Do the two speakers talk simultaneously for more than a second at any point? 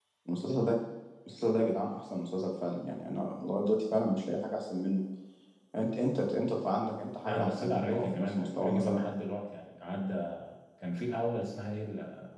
Yes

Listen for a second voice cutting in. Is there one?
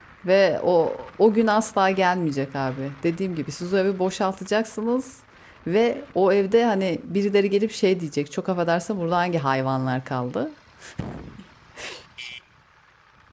No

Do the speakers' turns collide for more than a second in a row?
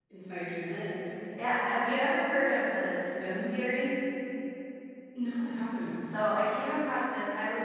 No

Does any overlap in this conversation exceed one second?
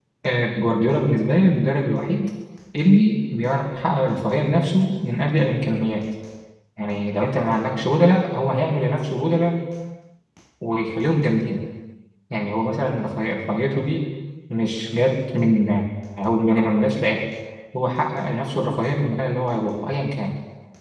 No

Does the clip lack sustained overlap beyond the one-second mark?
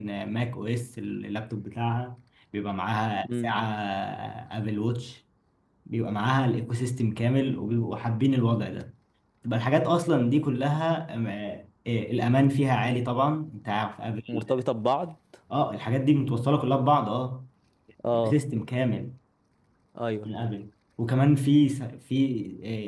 Yes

